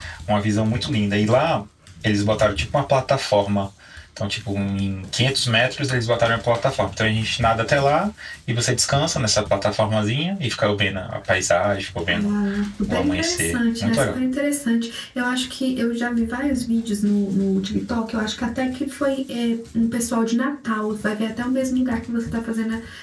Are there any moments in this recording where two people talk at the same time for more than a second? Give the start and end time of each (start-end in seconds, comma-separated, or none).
12.9-14.2